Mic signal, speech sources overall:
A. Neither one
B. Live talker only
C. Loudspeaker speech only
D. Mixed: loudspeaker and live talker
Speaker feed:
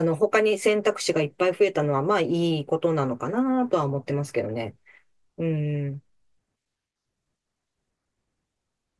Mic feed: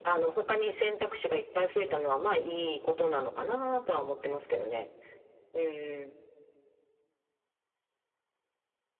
C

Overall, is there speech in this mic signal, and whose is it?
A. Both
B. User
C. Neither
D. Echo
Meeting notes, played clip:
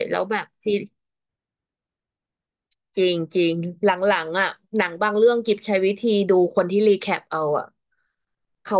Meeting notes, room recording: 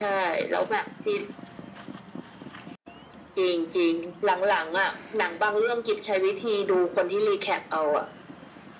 D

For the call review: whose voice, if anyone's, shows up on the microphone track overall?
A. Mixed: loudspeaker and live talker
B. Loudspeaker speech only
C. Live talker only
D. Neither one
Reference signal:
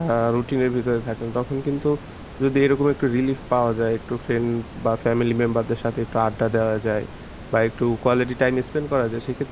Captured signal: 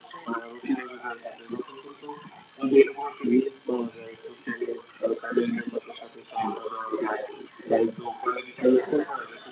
A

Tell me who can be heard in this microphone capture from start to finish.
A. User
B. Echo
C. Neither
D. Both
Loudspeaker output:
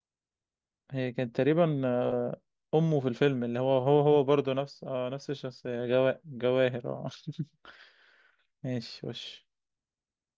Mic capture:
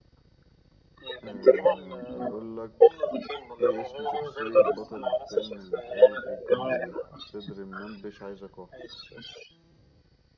D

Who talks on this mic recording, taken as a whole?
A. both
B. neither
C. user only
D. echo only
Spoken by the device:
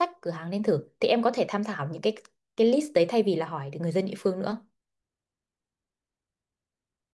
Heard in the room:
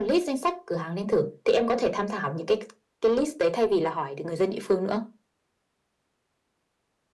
D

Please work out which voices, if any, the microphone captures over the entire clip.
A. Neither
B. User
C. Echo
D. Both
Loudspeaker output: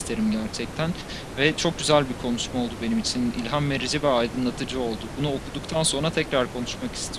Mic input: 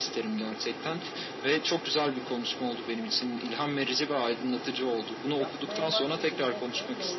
D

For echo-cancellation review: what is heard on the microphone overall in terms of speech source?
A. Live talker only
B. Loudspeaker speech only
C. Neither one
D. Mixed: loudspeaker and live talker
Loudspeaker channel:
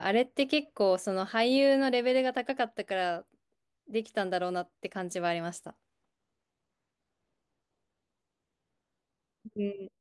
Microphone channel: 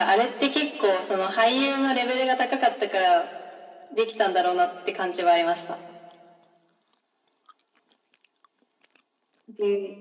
B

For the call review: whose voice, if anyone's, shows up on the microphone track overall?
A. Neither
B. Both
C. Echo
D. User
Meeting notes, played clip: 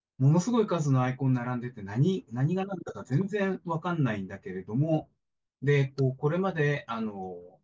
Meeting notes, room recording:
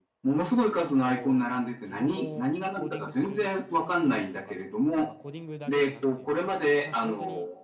B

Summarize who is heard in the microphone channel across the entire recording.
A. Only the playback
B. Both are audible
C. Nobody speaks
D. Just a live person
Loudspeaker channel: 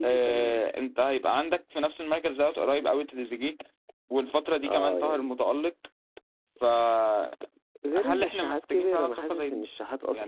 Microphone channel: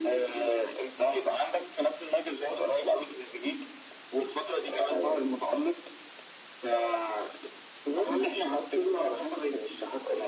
A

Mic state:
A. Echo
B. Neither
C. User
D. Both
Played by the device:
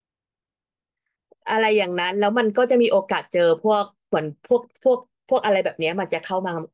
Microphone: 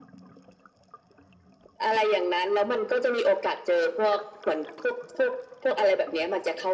A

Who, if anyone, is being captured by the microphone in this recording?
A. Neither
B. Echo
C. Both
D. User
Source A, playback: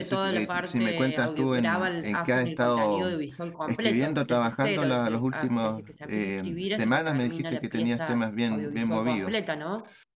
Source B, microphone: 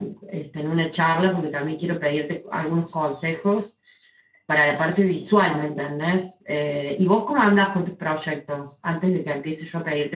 D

